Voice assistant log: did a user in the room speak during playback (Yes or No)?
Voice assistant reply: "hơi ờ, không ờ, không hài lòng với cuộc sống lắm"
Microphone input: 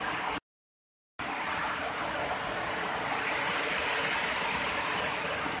No